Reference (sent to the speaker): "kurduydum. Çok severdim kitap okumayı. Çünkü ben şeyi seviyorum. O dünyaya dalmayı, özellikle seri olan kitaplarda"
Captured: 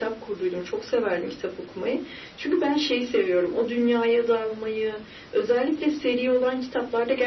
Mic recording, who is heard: echo only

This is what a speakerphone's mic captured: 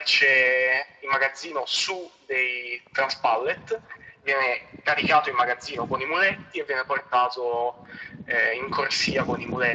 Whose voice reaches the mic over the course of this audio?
echo only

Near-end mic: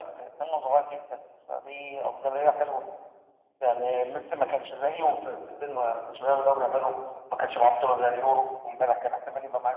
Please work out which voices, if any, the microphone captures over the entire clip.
echo only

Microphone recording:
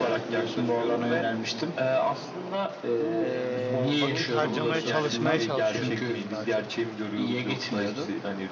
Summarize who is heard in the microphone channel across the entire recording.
both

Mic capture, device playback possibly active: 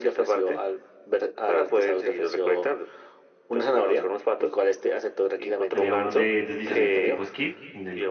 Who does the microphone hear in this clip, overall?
both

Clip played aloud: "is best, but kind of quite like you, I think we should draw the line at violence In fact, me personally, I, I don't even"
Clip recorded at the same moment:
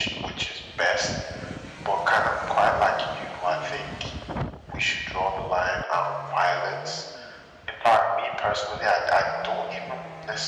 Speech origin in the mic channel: echo only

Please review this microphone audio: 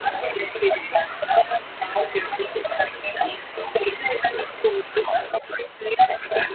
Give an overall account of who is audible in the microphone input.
echo only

